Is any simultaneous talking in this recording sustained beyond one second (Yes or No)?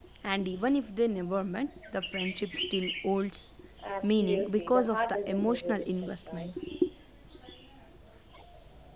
Yes